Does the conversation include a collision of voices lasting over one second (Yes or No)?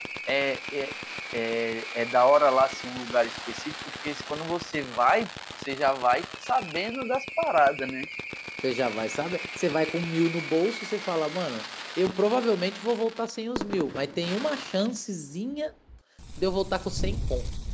No